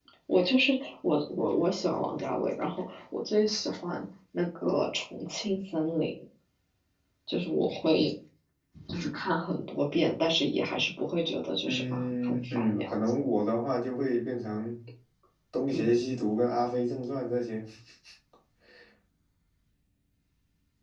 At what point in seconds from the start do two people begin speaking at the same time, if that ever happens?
11.7 s

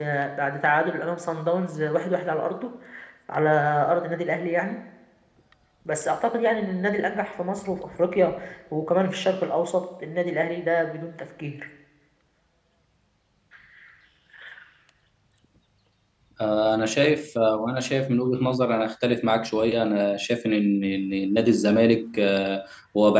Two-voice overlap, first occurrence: none

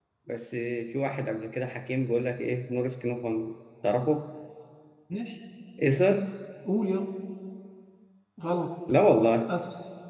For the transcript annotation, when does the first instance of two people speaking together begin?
none

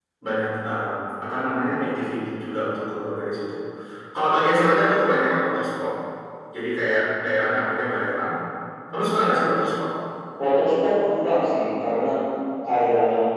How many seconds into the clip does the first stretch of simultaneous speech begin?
none

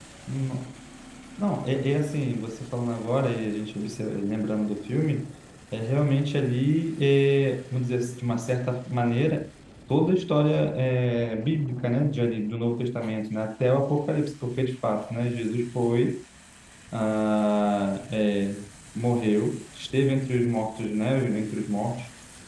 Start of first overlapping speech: none

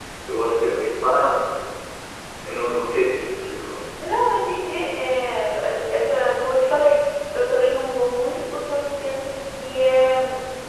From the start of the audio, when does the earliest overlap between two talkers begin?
none

